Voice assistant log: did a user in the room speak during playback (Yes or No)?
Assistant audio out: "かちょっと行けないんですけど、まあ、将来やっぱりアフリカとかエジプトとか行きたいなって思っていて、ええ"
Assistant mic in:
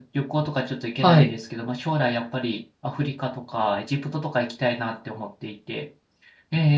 Yes